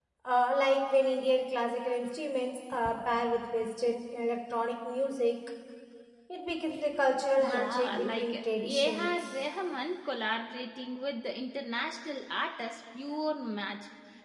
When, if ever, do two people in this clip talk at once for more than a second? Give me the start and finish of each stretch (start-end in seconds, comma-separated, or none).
7.4-9.1